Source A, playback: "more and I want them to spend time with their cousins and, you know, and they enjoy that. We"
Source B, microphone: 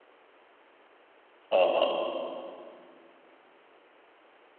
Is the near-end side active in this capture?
Yes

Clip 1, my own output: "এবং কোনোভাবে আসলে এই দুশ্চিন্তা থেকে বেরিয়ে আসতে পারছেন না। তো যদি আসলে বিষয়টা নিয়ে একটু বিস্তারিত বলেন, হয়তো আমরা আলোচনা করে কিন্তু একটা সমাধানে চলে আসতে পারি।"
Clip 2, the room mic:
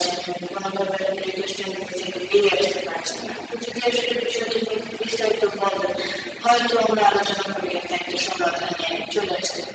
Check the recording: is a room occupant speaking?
No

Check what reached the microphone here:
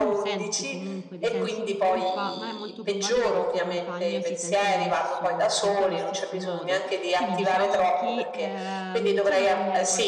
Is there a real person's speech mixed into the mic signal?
Yes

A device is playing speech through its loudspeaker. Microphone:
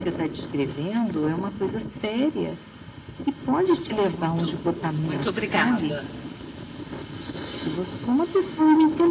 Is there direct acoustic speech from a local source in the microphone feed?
Yes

